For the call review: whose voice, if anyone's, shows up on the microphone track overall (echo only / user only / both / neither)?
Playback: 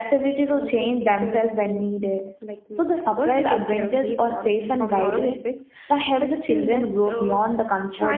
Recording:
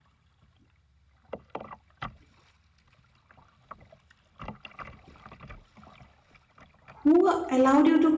user only